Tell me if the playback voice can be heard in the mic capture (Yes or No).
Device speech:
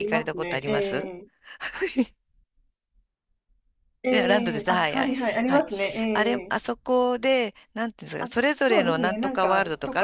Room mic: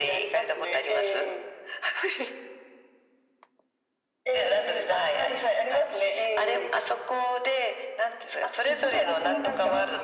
Yes